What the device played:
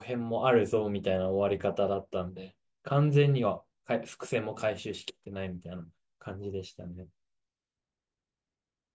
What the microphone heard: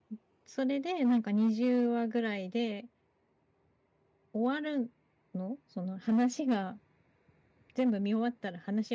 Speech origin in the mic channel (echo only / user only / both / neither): user only